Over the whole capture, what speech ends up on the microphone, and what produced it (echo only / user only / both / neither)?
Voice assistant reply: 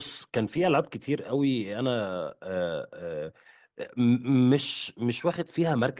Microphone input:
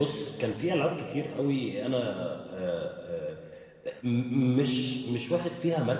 echo only